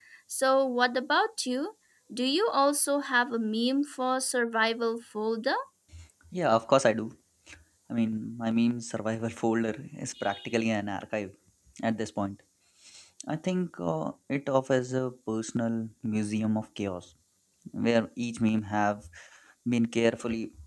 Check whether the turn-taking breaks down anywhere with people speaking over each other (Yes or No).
No